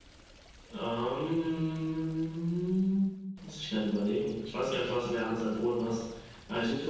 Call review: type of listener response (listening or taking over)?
taking over